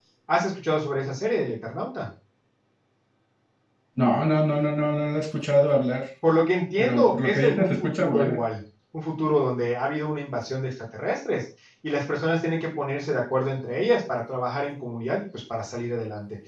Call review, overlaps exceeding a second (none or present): present